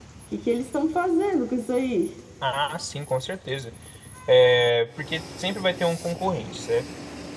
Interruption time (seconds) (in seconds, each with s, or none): none